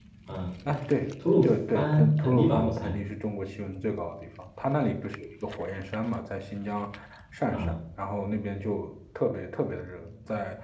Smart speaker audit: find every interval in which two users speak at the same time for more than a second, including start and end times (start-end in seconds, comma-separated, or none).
1.4-3.0